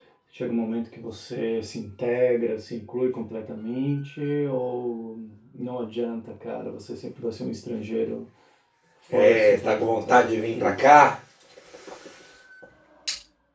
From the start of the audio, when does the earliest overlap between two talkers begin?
9.1 s

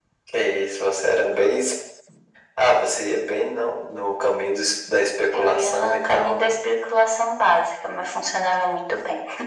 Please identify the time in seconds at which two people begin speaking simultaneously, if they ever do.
5.3 s

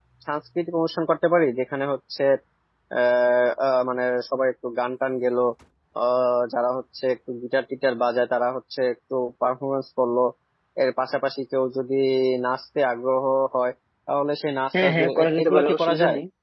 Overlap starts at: 14.7 s

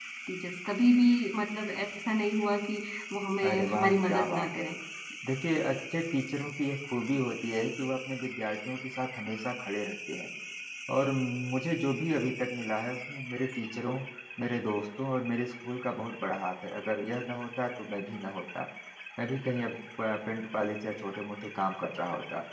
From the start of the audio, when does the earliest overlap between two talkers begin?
3.4 s

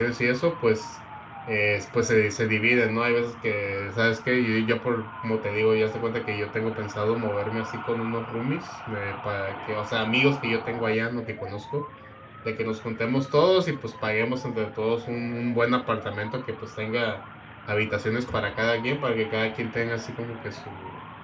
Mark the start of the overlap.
none

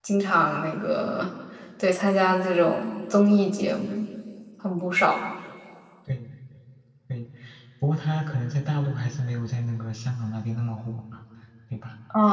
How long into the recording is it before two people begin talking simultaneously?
none

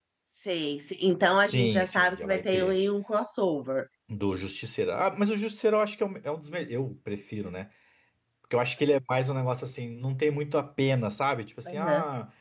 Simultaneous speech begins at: 1.4 s

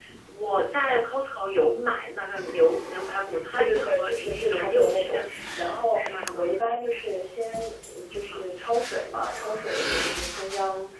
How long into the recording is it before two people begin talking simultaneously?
3.5 s

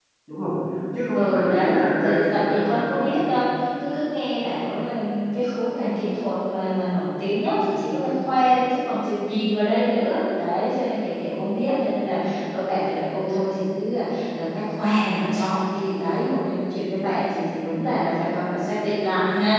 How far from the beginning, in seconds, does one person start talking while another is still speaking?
1.1 s

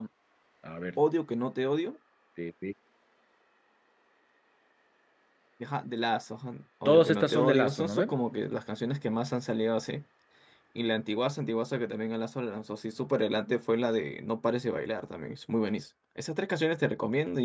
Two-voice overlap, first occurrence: 6.8 s

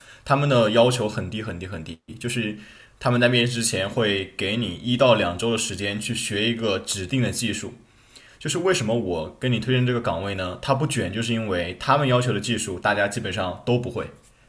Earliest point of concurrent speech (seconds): none

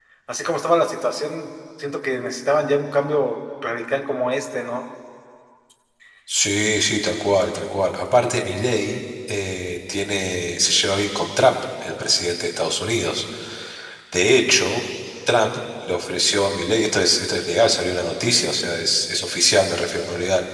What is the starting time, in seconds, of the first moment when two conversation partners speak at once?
none

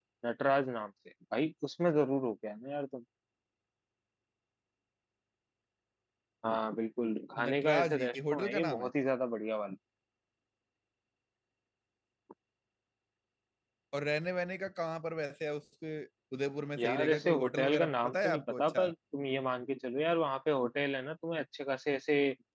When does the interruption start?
7.5 s

